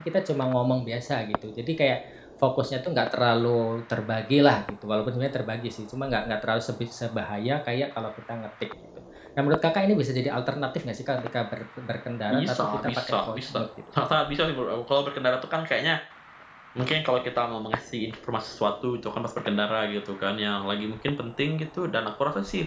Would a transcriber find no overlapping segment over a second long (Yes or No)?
No